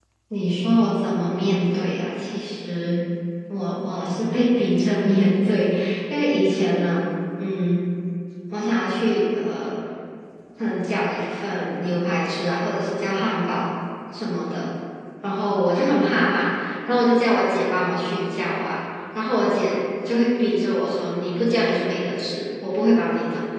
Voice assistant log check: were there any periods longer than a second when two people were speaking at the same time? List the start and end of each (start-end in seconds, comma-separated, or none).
none